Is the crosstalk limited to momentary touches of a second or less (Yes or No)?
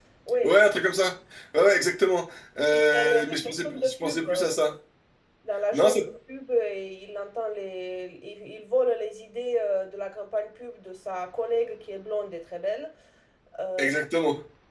No